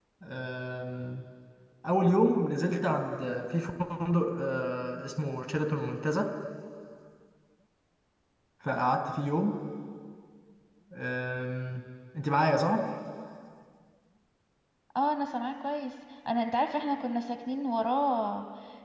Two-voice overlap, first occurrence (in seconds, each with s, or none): none